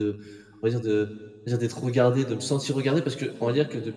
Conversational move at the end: listening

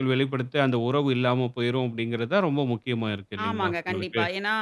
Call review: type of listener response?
taking over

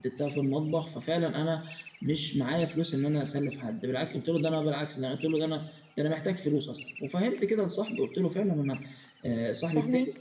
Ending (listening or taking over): listening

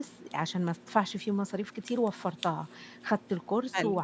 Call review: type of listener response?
listening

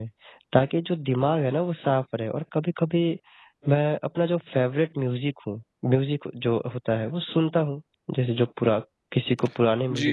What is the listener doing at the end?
taking over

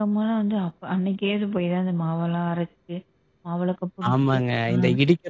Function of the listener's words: taking over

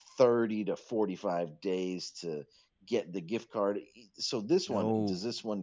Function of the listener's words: listening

